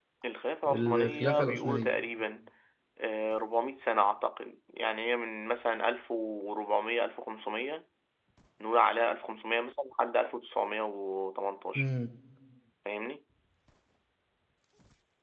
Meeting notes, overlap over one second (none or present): present